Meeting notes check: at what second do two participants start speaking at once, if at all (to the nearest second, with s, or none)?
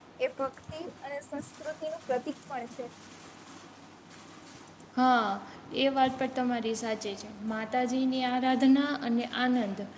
none